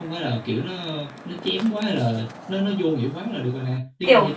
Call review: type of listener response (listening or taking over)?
taking over